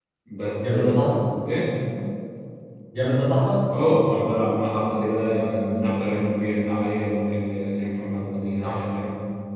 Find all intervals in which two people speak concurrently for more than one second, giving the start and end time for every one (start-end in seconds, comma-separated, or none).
none